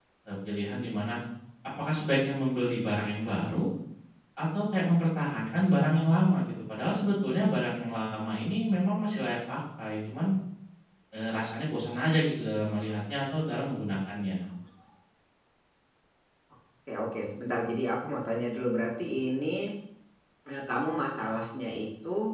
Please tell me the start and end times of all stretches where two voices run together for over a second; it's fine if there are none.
none

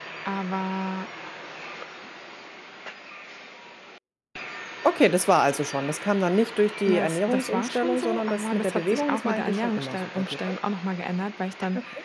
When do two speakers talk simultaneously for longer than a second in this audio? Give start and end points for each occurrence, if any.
6.8-10.6

